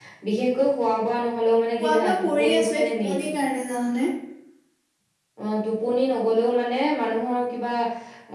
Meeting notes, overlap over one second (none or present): present